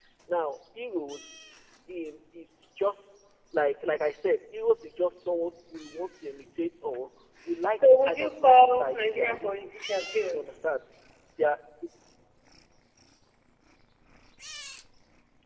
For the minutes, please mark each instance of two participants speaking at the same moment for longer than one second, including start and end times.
7.8-9.7

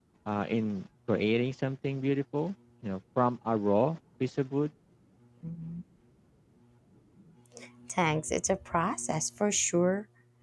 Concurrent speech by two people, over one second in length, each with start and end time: none

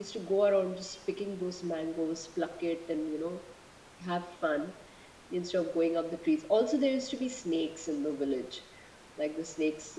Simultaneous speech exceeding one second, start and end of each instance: none

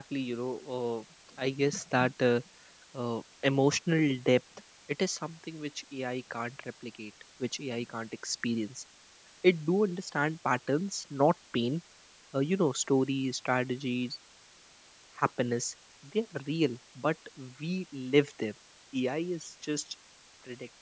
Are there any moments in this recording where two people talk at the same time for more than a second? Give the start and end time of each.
none

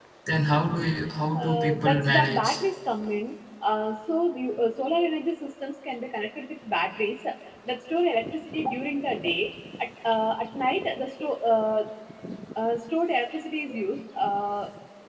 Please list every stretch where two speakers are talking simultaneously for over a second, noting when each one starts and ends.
1.3-2.6

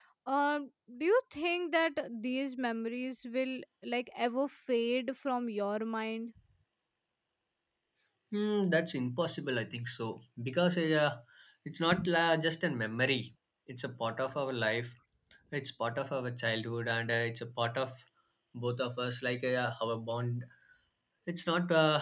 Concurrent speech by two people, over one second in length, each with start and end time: none

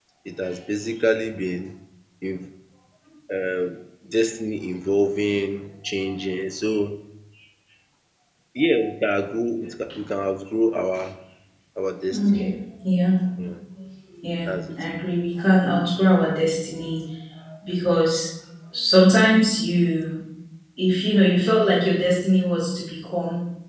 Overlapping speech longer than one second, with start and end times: none

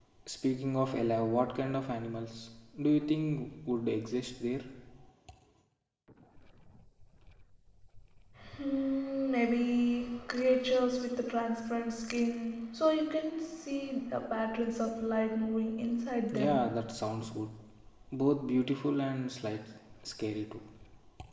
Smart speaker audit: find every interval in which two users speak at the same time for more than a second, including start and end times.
none

